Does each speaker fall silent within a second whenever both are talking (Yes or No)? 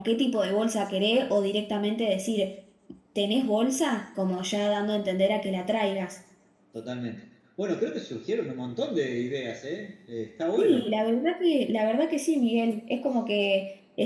Yes